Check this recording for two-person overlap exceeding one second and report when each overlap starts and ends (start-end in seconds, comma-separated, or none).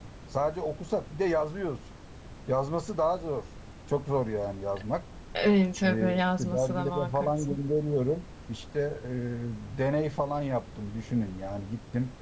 5.8-7.5